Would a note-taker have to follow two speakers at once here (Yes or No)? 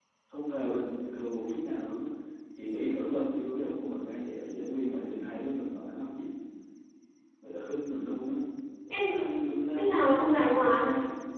Yes